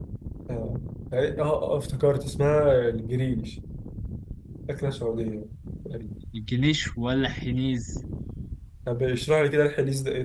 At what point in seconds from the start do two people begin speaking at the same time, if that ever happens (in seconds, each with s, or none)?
none